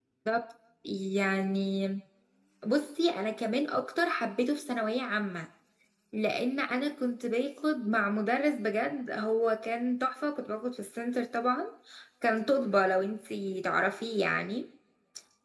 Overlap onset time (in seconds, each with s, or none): none